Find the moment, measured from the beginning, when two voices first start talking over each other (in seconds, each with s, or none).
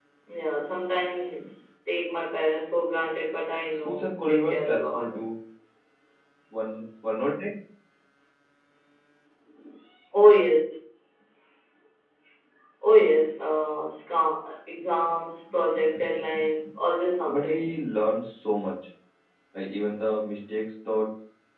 3.8 s